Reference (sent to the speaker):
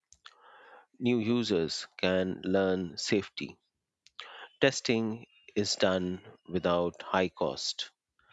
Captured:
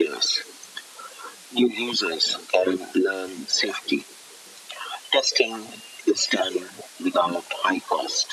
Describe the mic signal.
echo only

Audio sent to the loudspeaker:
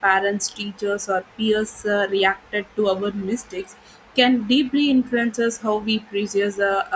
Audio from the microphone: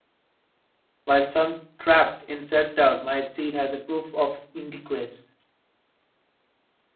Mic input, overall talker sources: user only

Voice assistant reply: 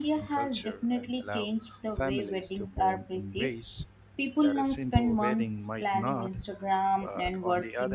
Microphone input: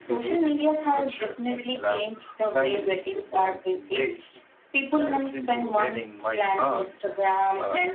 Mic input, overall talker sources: echo only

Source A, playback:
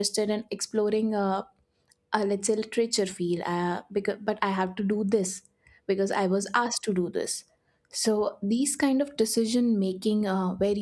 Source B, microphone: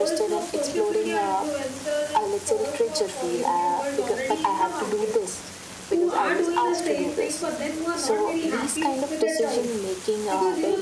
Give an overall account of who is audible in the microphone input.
both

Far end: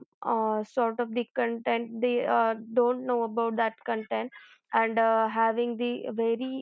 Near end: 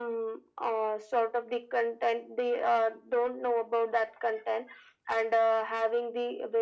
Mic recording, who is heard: echo only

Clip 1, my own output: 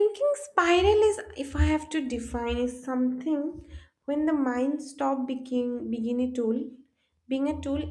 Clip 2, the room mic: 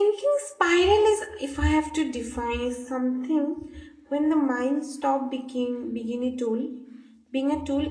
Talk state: echo only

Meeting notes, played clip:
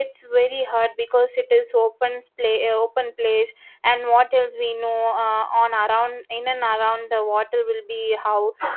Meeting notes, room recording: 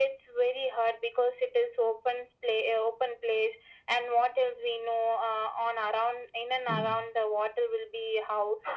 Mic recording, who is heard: both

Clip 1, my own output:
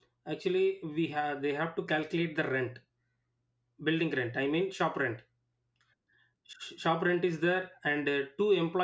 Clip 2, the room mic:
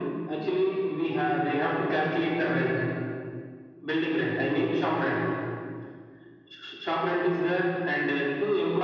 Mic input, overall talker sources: echo only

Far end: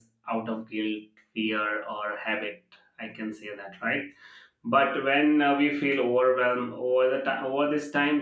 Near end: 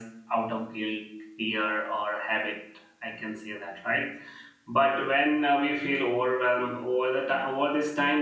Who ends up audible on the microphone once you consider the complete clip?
echo only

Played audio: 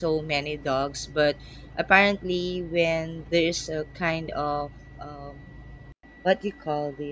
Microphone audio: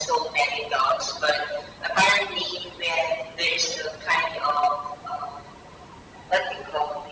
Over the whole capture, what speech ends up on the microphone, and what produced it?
echo only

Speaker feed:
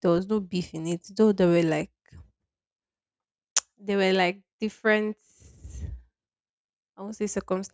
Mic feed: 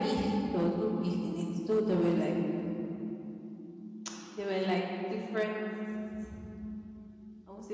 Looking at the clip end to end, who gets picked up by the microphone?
echo only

